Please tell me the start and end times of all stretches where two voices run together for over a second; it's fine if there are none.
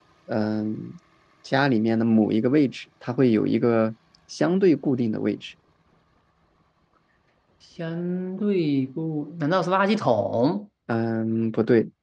none

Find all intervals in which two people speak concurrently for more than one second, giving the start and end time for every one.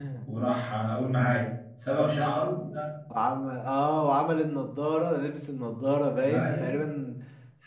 none

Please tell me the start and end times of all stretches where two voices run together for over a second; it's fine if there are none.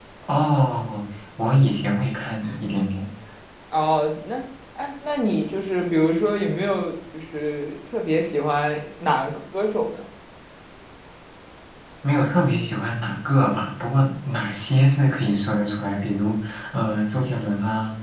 none

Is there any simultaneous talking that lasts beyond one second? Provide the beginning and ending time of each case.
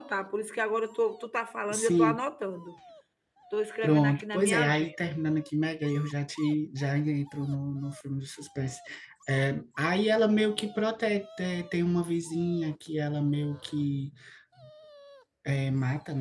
3.8-5.1

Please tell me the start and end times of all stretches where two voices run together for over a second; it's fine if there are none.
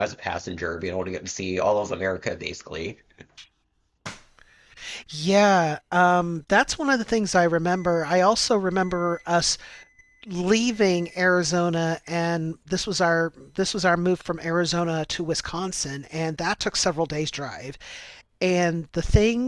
none

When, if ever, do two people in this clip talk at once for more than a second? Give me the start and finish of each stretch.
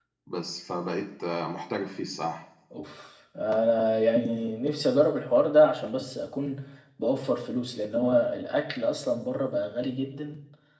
none

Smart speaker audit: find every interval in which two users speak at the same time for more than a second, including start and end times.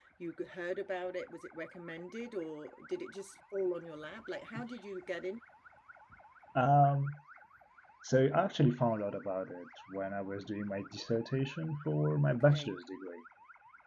none

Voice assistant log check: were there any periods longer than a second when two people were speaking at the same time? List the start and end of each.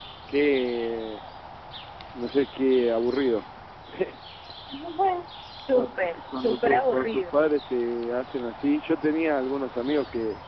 5.7-7.4

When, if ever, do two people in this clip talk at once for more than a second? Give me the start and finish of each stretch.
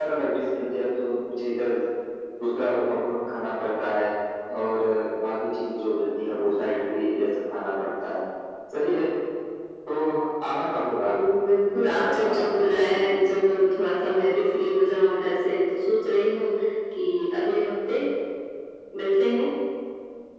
11.8-13.3

